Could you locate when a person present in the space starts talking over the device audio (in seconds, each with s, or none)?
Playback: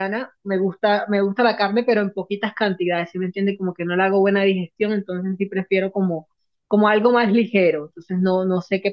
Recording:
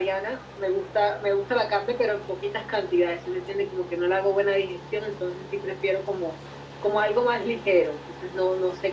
none